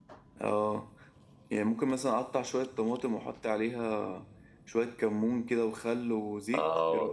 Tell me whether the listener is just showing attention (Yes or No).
No